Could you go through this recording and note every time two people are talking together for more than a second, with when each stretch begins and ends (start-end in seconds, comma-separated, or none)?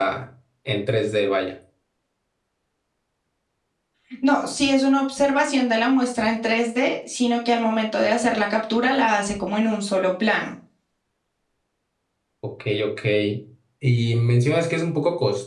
none